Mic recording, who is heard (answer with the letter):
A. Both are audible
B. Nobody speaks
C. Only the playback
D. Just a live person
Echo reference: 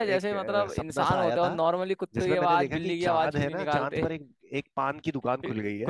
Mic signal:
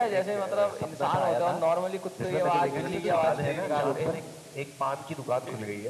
A